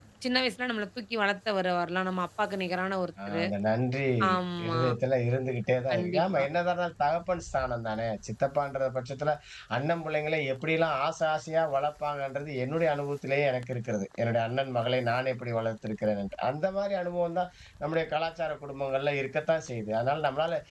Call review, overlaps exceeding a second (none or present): none